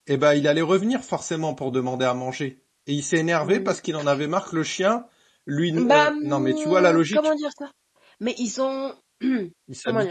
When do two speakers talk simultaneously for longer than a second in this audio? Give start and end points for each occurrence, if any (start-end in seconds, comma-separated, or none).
5.8-7.3